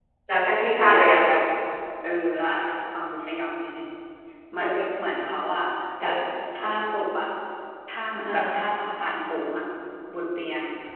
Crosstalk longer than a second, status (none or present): none